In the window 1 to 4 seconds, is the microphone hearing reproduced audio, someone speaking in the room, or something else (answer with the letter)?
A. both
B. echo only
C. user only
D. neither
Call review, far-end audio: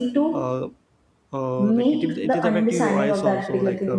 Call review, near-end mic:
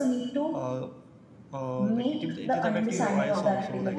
A